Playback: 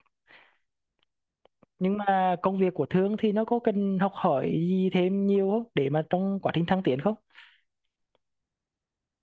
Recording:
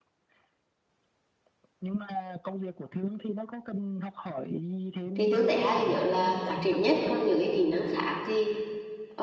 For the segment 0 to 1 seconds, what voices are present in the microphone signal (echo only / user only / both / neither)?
neither